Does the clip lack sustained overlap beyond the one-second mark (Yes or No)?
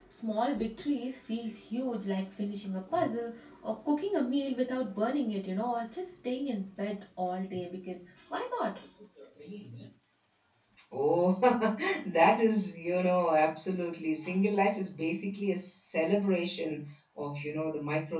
Yes